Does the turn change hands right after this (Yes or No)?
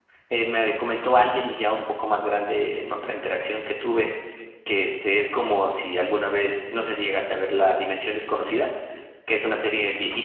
No